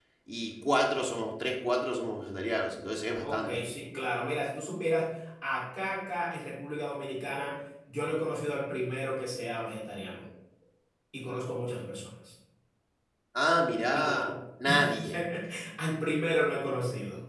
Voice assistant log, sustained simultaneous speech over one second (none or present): none